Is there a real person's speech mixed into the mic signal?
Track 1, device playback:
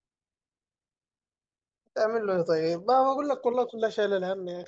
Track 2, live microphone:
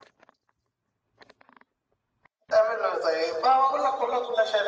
No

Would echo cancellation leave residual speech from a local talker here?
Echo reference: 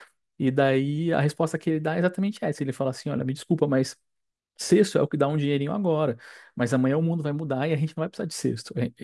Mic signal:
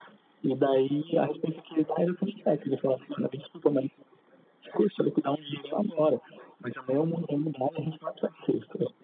No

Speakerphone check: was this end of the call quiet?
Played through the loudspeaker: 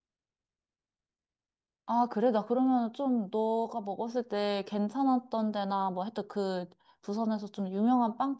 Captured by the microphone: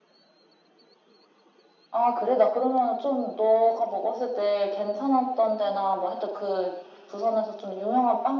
Yes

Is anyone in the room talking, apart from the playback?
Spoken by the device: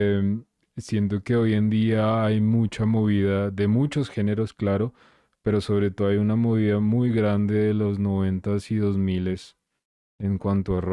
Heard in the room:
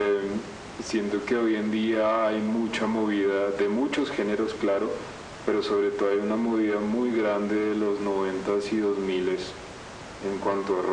No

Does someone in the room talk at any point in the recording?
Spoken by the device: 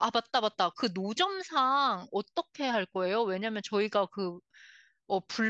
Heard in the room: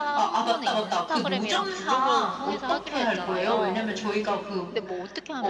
Yes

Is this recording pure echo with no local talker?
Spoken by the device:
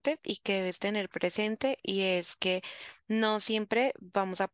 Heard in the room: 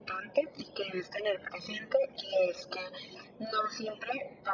Yes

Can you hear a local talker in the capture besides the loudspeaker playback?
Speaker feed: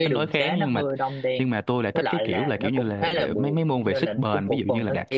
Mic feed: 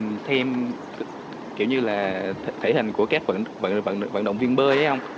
Yes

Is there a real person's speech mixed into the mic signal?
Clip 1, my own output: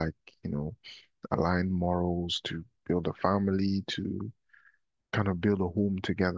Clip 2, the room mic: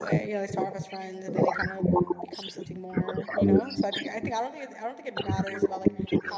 Yes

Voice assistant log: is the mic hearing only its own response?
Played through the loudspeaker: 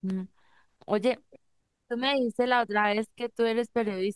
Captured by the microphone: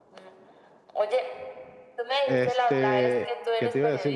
No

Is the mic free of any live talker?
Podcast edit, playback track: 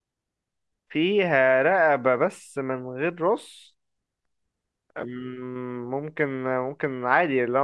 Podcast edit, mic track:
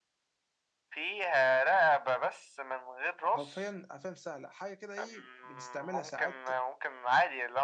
No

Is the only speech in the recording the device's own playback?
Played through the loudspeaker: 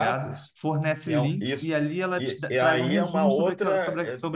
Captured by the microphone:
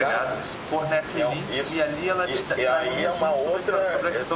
Yes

